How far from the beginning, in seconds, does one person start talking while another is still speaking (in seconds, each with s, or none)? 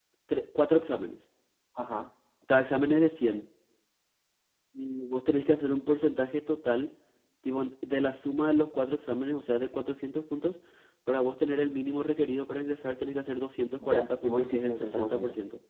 13.8 s